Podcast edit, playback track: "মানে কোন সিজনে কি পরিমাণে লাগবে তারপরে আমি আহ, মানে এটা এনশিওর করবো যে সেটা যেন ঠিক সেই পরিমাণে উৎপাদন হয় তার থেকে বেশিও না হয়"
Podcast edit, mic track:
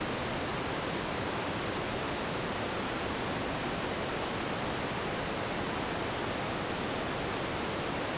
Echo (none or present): none